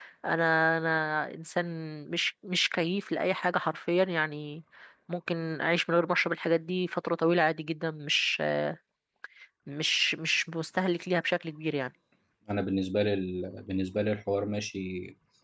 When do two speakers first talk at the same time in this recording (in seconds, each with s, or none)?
none